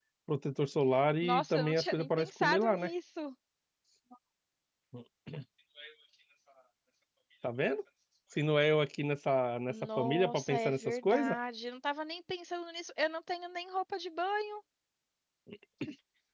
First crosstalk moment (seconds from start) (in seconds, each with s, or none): 1.2 s